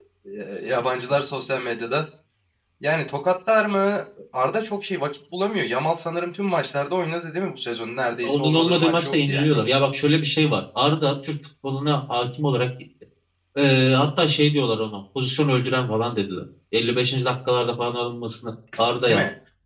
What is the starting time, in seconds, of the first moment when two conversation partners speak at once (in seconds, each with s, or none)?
8.2 s